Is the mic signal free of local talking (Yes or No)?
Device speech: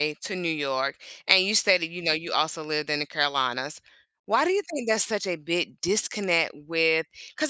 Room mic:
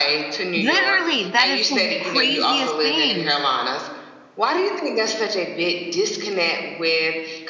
No